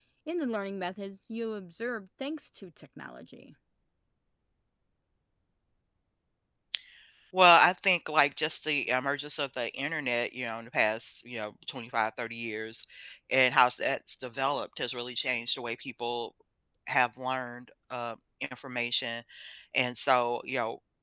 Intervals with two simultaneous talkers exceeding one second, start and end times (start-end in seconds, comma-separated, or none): none